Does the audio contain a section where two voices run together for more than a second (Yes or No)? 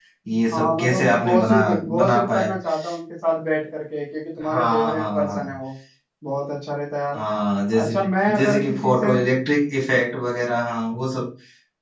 Yes